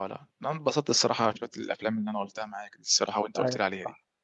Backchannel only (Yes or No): No